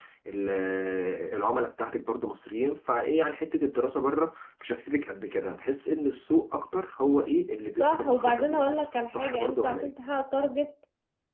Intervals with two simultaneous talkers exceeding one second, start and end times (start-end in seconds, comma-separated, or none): 7.8-9.9